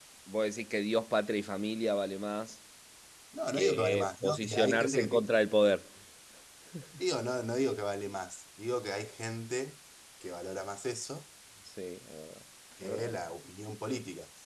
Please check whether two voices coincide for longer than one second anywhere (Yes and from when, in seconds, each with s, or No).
Yes, from 3.5 s